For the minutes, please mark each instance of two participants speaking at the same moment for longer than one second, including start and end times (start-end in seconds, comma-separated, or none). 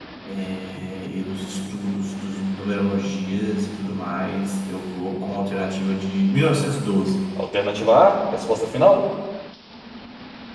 none